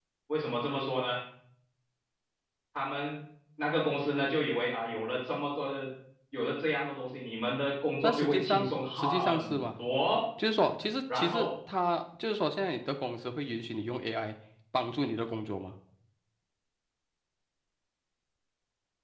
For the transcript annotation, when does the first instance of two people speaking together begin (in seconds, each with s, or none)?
8.0 s